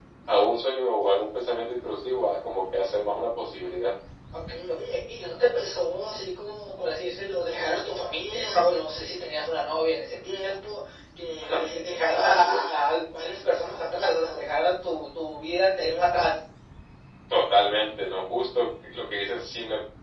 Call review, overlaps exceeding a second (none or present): none